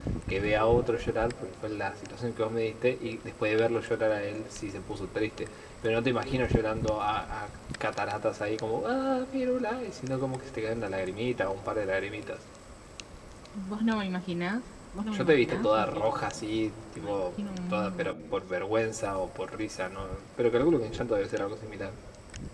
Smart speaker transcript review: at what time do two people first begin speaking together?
15 s

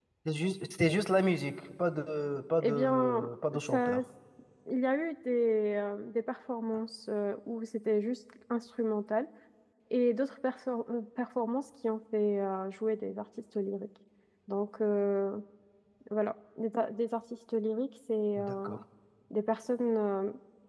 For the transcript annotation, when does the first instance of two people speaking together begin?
3 s

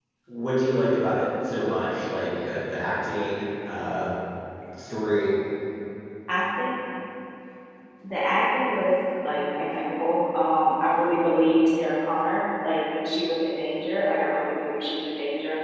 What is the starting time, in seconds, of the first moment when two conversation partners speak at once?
none

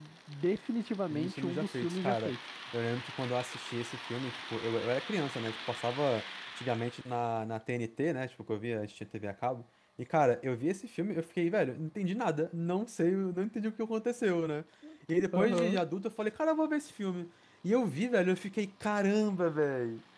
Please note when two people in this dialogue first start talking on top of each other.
1 s

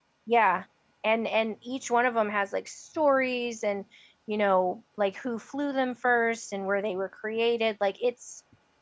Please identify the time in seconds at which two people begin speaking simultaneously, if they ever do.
none

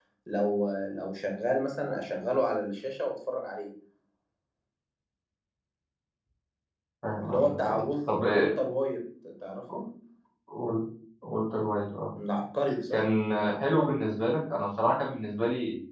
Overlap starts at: 7 s

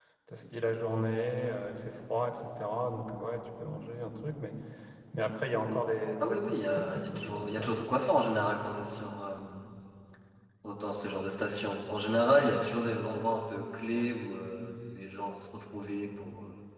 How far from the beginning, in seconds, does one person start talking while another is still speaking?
6 s

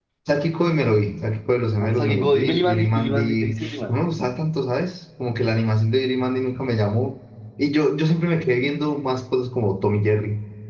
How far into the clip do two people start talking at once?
2 s

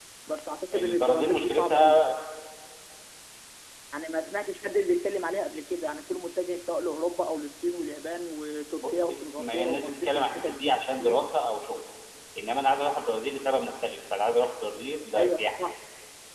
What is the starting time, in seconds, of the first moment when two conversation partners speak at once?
1 s

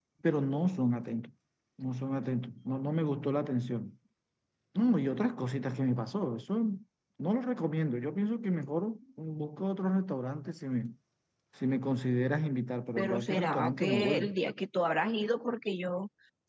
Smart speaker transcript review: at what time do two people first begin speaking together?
13 s

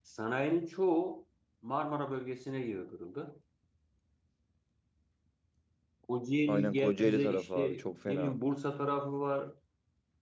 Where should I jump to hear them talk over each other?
6 s

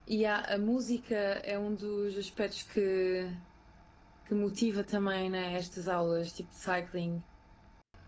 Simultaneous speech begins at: none

